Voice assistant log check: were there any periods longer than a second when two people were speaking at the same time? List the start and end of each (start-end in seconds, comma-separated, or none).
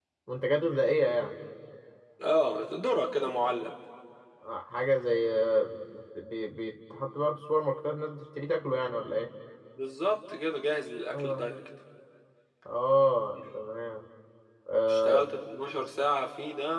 none